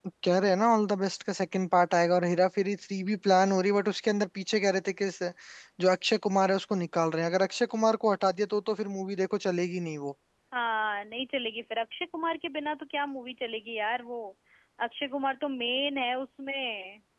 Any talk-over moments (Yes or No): No